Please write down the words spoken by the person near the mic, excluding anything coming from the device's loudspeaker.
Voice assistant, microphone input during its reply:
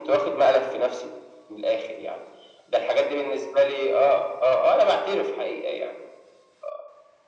none

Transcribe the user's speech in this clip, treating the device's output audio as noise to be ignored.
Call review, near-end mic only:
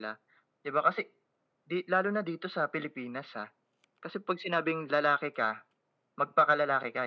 none

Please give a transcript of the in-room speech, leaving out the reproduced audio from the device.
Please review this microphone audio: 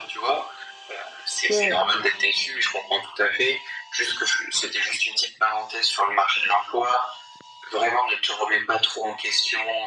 Mouais.

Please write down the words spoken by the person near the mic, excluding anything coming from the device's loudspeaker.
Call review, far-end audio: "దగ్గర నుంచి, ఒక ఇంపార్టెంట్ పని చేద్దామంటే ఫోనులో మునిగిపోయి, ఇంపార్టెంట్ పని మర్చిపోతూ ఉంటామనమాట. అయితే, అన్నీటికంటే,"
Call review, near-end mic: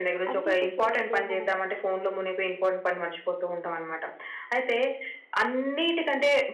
అంటే ఇప్పుడు చూడండి, మనం

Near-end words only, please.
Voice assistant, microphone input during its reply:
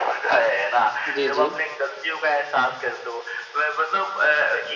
जी, जी।

